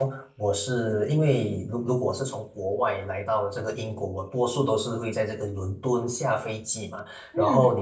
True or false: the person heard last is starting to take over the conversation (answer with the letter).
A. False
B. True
A